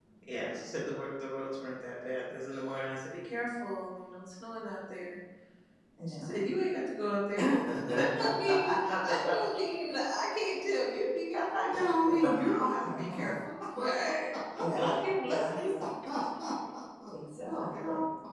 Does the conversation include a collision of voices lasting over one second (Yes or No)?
Yes